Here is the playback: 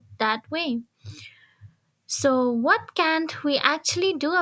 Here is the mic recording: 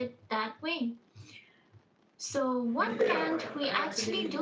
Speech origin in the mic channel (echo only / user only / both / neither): both